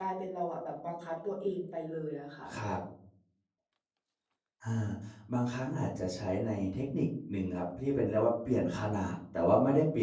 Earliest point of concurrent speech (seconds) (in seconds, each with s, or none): none